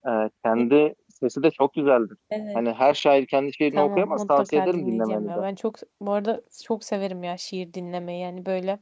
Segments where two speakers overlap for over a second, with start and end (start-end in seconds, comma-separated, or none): 3.8-5.4